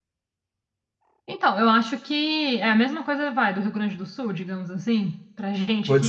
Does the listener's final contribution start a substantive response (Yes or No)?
Yes